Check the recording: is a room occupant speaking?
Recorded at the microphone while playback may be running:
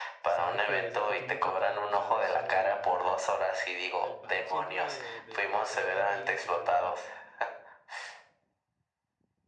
Yes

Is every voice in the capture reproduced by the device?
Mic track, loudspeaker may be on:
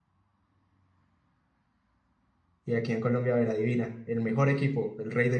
No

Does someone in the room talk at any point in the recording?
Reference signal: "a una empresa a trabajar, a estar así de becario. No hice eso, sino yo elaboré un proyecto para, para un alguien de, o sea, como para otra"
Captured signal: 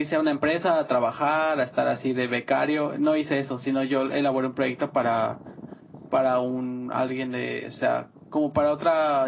No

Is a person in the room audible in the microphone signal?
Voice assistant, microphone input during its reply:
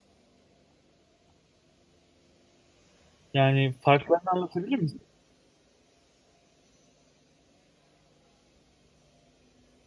Yes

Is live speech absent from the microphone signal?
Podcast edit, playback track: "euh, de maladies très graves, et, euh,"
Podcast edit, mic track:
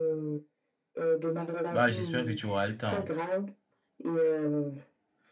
No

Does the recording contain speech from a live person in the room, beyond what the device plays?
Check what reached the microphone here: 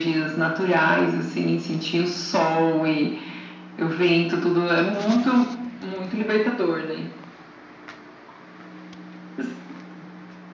No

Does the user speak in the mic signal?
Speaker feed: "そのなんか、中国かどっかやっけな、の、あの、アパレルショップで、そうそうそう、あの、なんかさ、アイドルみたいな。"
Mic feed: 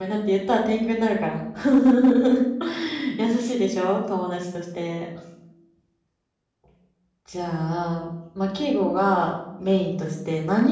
Yes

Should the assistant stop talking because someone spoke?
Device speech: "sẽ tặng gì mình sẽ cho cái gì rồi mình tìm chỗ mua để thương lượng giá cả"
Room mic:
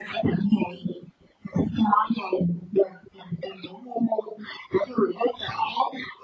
No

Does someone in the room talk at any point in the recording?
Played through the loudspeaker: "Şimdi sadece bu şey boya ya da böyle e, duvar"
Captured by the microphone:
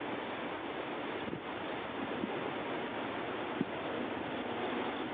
No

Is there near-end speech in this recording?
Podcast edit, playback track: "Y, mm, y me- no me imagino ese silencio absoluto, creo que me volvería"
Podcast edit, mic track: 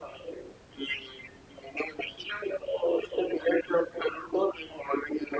No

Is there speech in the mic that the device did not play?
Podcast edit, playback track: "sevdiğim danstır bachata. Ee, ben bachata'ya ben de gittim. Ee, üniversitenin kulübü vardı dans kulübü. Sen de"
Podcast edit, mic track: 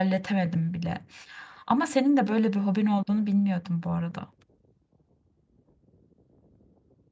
Yes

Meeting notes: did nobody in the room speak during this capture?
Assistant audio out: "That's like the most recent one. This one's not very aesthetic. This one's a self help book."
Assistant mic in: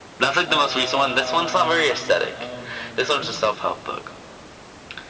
No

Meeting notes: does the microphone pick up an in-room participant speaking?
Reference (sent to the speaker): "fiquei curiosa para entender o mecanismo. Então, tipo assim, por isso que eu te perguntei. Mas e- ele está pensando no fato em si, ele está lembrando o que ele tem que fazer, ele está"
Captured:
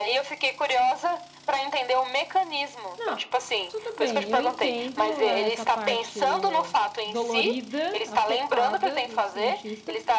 Yes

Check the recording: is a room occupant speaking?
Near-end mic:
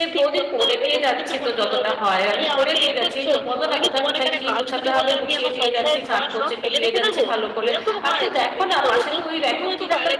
Yes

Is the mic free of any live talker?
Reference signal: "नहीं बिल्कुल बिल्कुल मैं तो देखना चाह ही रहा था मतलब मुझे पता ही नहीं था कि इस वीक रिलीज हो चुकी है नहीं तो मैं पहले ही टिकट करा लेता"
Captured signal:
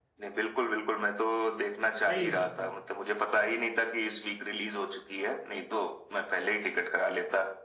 No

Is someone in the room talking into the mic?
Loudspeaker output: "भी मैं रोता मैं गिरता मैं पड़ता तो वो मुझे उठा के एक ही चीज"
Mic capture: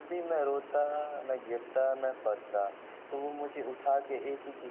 No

